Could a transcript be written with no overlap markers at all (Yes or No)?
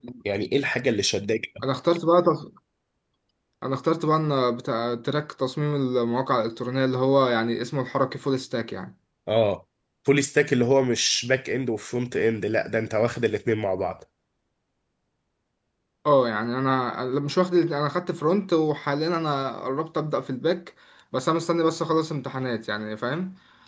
Yes